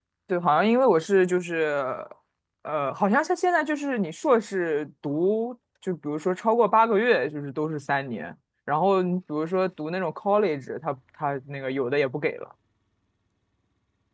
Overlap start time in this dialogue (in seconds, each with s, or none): none